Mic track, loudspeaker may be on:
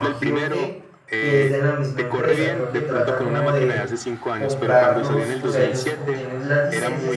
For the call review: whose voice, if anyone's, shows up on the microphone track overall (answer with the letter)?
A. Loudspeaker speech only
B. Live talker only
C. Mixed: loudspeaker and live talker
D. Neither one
C